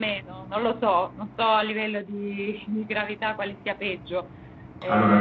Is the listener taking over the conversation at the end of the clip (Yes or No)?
Yes